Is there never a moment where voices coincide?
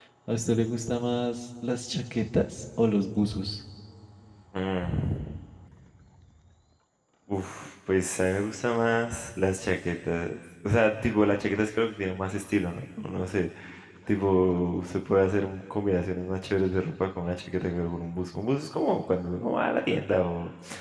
Yes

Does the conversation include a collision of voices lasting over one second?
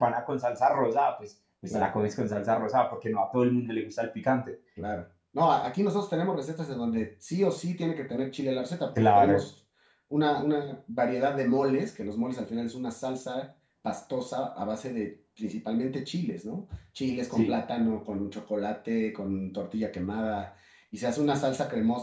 No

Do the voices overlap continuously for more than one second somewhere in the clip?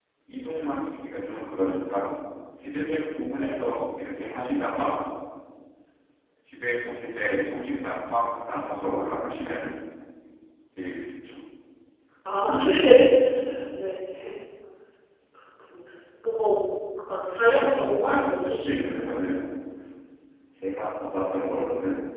Yes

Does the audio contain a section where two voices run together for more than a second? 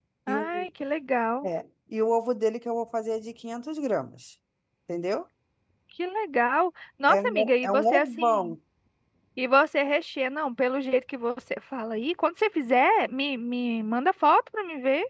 Yes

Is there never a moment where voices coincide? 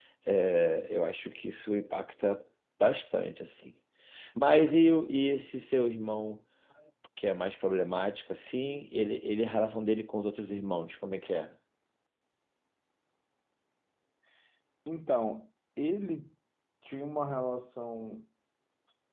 Yes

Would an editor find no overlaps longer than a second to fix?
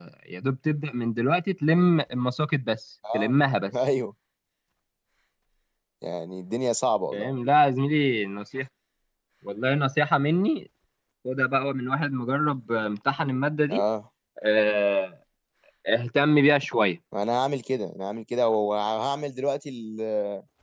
Yes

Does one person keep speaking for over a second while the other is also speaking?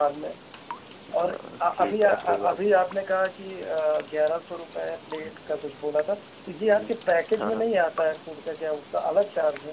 Yes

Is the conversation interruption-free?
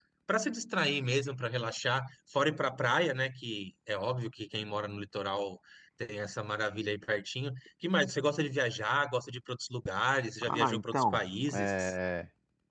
No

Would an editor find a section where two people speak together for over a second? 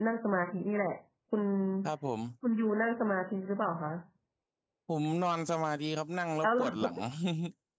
No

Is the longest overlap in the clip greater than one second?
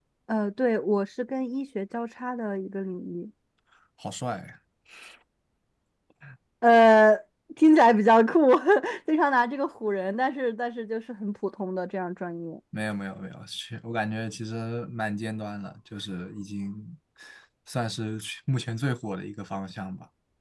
No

